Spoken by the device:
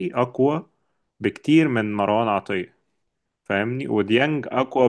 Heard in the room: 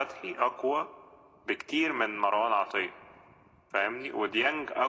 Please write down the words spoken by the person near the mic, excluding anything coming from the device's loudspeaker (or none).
none